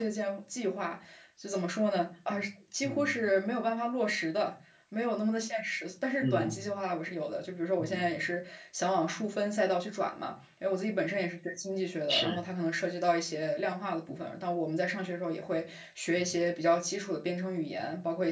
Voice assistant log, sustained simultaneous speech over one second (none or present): none